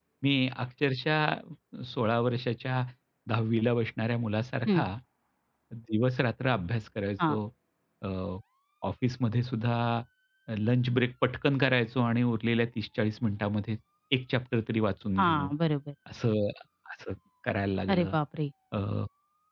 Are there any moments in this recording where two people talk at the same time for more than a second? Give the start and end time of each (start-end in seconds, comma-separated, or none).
none